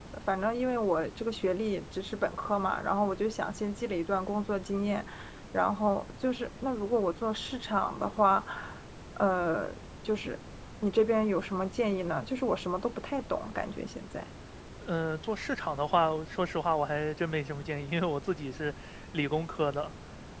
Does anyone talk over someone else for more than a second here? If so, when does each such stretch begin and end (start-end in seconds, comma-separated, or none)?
none